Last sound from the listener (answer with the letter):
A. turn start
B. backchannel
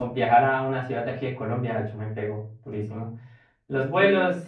B